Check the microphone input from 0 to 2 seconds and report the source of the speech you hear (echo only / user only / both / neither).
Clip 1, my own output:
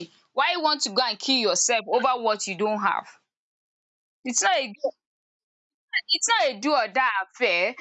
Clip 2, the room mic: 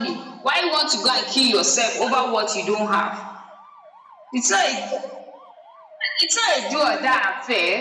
echo only